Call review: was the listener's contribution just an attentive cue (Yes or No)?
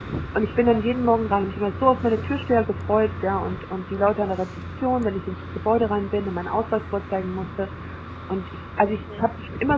Yes